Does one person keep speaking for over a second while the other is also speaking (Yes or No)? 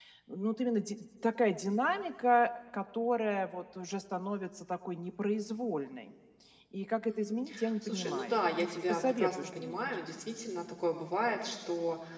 Yes